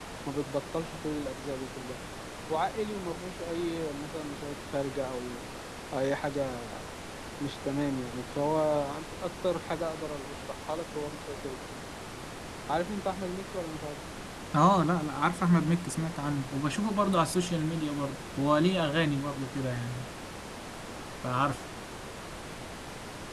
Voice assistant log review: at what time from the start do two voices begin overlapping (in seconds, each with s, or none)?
none